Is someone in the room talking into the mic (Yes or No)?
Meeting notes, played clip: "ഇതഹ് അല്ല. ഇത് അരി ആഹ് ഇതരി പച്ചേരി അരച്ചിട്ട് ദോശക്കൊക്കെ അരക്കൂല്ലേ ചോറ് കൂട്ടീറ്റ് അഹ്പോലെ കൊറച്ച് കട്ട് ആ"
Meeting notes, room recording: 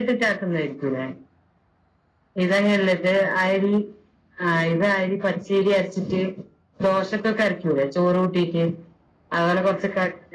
No